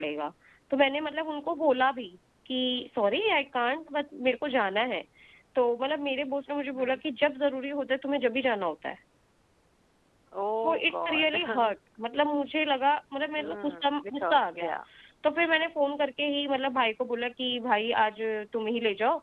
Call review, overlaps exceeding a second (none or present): present